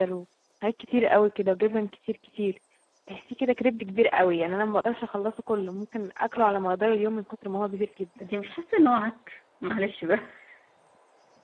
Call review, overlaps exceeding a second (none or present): none